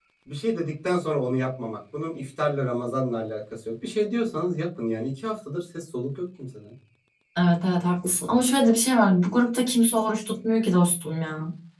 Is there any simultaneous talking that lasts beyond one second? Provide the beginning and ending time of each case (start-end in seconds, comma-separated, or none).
none